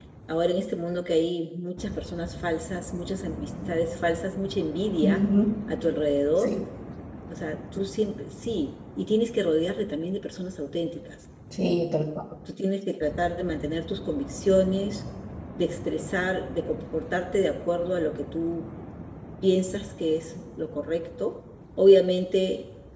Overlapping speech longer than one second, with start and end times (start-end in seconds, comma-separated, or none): none